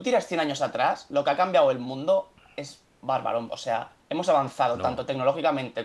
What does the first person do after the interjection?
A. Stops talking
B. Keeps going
B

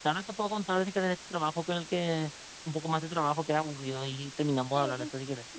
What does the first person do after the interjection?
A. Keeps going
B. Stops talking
B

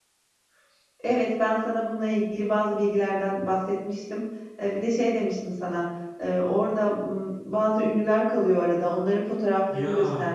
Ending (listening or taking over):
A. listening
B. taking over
A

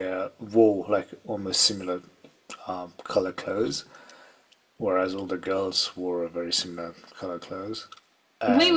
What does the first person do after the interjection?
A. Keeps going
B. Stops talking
B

